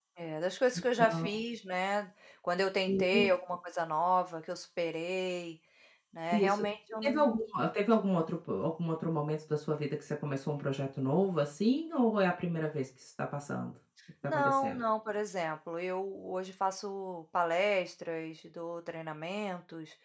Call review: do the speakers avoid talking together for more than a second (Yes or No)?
Yes